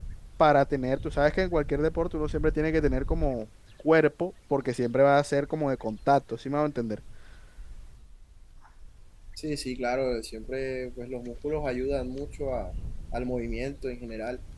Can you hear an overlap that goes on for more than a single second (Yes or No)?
No